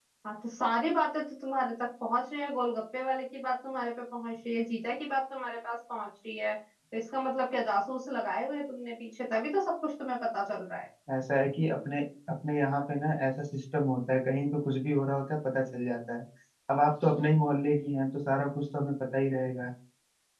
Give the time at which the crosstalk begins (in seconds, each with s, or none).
none